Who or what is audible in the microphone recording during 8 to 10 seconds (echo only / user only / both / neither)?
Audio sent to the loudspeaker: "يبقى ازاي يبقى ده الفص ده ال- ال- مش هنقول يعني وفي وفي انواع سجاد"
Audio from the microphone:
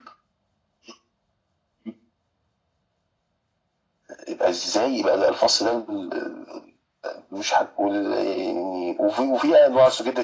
echo only